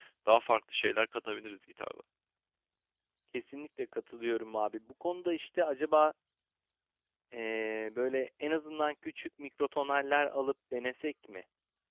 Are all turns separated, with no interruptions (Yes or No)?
Yes